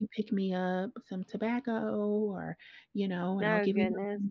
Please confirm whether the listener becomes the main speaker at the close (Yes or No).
No